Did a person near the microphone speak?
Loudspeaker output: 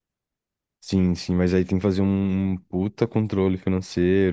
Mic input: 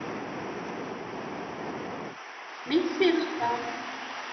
Yes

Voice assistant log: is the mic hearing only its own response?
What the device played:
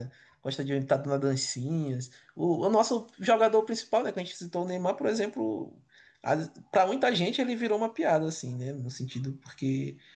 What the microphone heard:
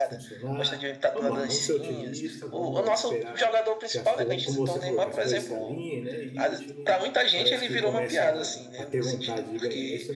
No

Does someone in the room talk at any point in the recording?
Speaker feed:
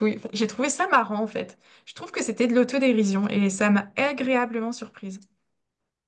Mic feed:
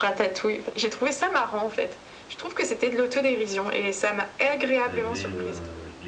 Yes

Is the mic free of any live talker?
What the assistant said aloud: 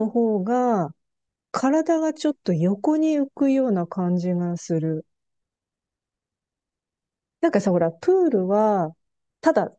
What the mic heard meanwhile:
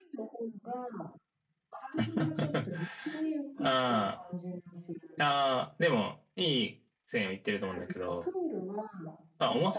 No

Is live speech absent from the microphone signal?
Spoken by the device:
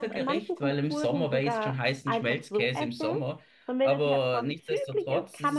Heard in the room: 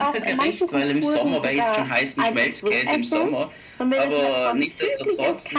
Yes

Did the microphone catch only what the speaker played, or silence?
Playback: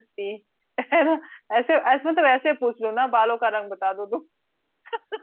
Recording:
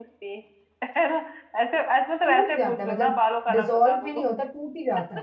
No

